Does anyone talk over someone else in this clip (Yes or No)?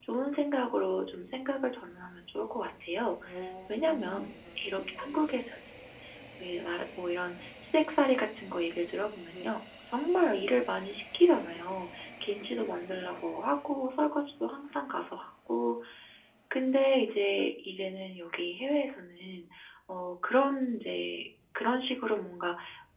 Yes